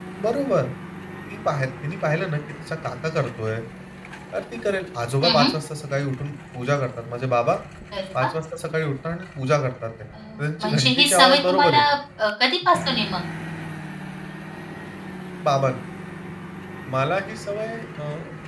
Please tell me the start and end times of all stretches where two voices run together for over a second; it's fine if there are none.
10.6-11.8

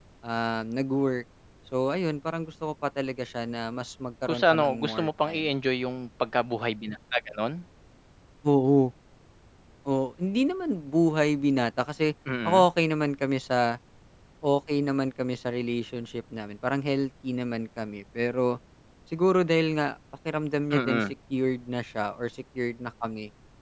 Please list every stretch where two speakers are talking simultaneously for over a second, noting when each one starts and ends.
4.3-5.5

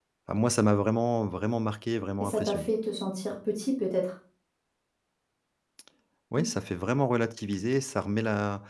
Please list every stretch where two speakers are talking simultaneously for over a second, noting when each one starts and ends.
none

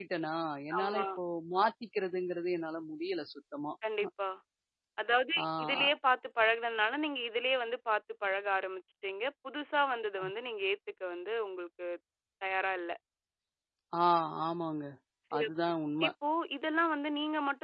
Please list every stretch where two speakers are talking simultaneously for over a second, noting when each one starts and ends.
none

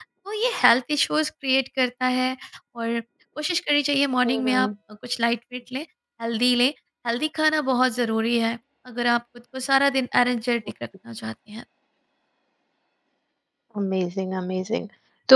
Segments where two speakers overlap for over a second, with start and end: none

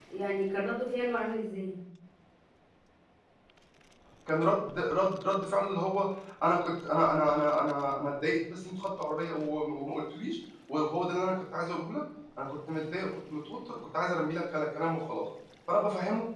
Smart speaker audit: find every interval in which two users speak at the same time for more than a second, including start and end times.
none

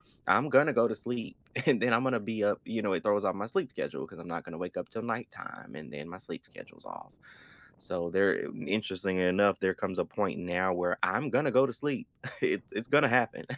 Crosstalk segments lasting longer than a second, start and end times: none

